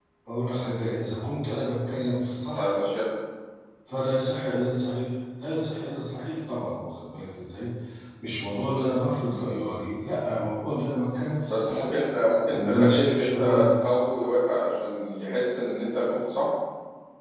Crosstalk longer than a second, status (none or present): present